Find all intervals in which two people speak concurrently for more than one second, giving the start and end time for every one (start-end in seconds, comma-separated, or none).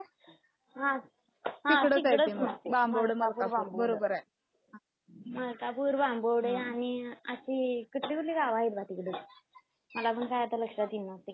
1.7-3.9